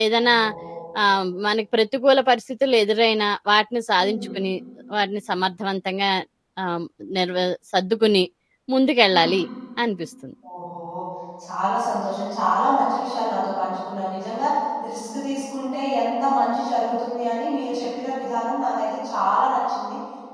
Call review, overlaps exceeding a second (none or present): none